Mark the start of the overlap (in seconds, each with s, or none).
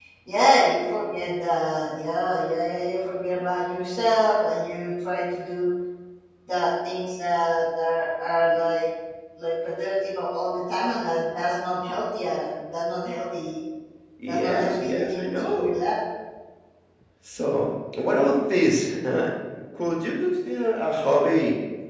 14.3 s